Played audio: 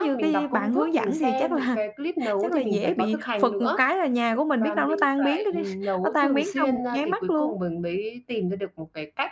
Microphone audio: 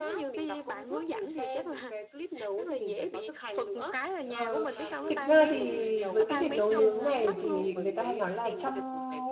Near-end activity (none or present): present